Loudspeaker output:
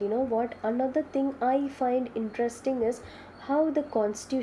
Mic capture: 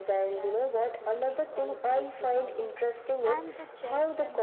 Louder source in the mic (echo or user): echo